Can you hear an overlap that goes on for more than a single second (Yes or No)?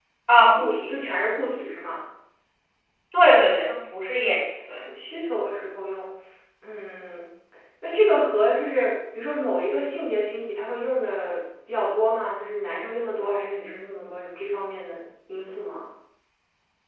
No